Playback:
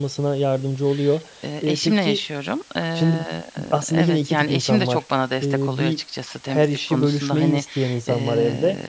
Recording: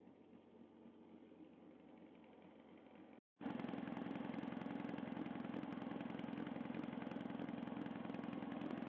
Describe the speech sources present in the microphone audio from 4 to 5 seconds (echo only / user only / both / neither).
neither